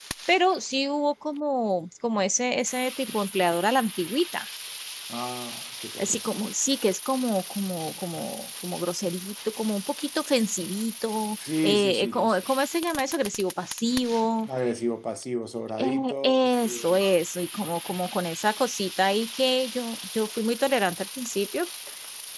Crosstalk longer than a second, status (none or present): present